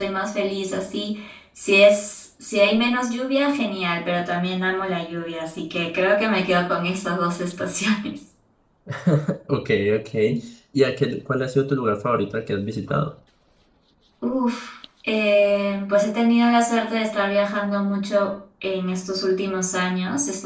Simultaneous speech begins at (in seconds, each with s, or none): none